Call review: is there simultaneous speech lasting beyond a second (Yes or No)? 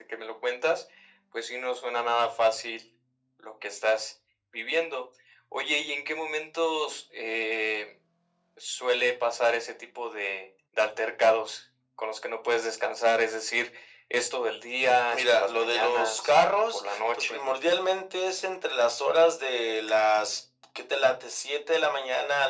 Yes